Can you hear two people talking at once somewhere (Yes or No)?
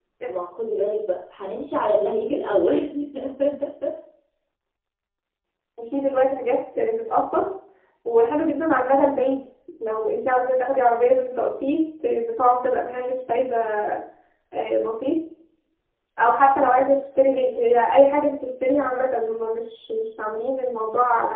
No